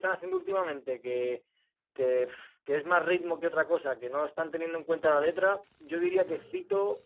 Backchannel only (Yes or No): Yes